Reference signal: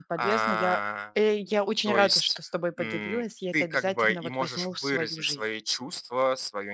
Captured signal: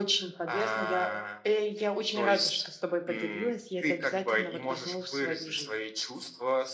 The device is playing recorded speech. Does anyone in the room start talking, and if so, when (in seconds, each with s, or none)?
none